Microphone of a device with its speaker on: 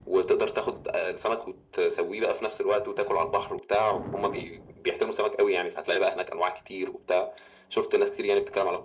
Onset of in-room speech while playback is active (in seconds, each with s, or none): none